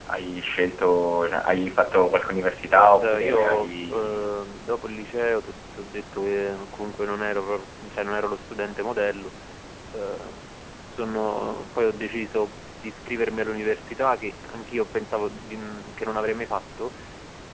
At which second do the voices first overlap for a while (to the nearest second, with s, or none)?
3 s